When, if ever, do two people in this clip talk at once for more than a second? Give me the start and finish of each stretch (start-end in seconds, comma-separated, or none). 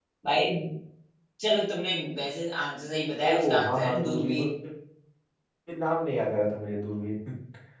3.2-4.5